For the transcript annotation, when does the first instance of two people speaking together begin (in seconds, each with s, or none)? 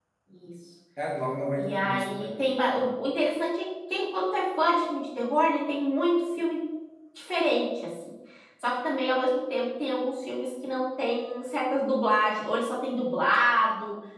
1.6 s